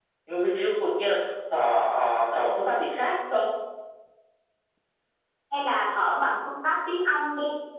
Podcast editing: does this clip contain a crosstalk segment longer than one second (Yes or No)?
No